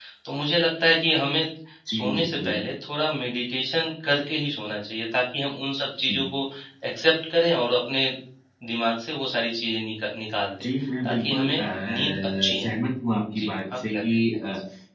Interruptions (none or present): present